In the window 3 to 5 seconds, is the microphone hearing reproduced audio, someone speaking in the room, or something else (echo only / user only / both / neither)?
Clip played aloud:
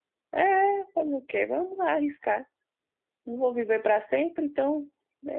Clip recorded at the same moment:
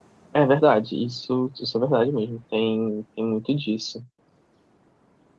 user only